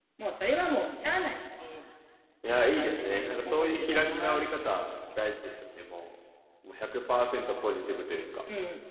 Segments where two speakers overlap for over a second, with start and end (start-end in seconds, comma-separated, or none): 2.6-4.5